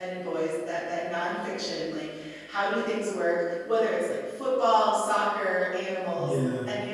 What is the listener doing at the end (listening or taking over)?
listening